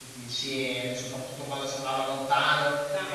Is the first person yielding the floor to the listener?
No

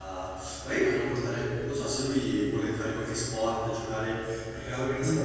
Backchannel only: No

